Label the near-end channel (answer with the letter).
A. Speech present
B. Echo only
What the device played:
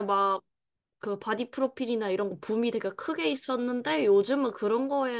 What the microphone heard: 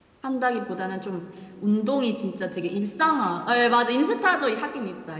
A